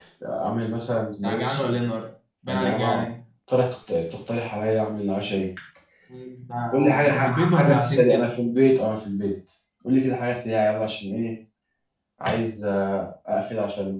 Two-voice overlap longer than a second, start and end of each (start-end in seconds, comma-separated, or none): 6.7-8.3